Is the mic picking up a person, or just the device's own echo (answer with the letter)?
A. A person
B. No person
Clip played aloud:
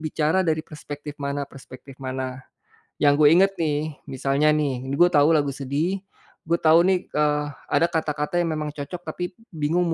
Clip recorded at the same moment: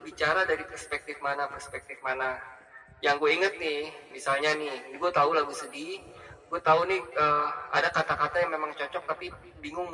B